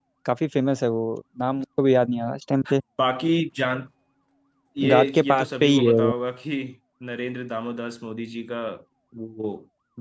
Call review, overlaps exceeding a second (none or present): present